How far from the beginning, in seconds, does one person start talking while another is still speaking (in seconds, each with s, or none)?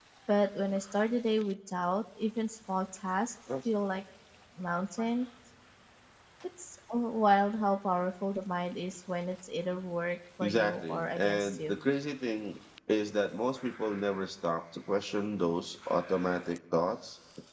10.4 s